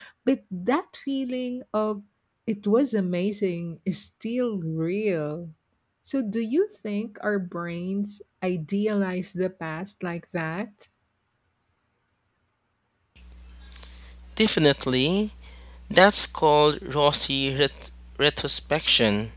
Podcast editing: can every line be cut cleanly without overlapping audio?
Yes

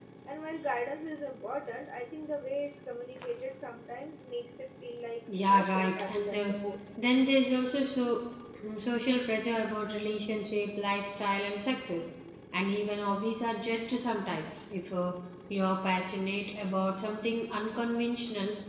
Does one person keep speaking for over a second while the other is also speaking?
Yes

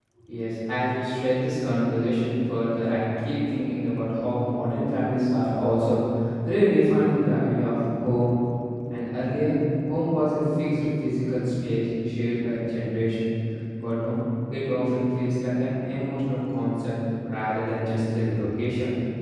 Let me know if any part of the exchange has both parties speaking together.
No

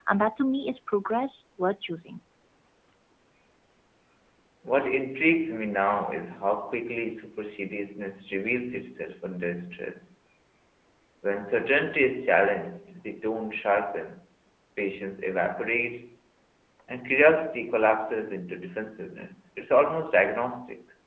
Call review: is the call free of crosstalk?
Yes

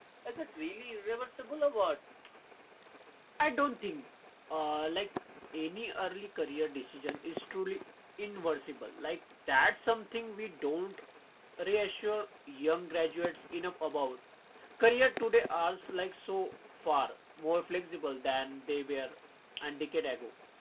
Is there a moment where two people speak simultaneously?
No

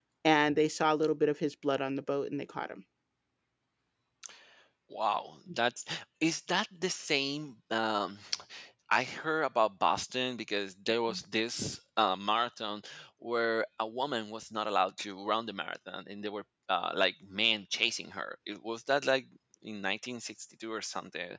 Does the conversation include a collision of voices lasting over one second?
No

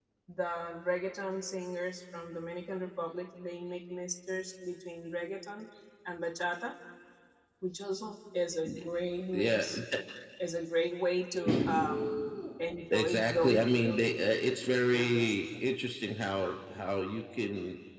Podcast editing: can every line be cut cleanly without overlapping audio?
No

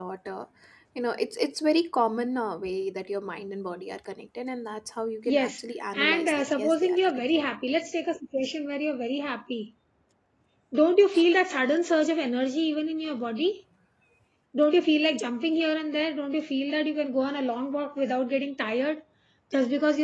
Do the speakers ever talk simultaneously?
Yes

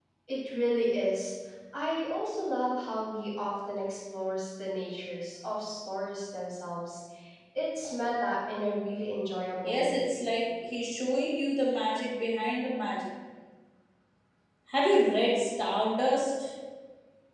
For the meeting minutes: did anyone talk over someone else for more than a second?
No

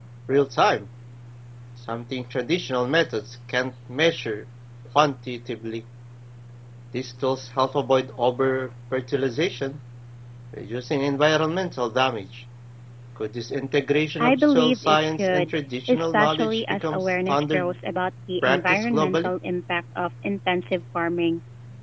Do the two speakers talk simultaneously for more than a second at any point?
Yes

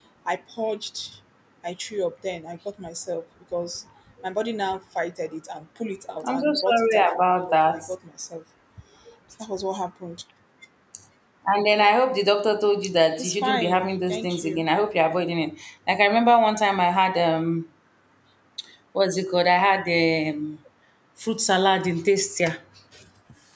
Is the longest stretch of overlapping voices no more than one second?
No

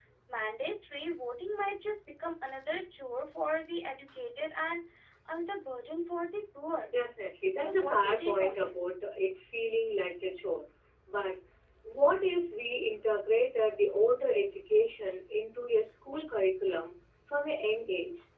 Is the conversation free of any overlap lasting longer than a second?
No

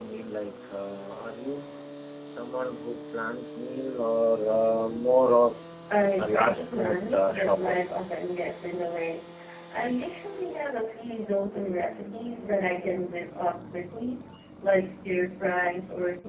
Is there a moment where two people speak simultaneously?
Yes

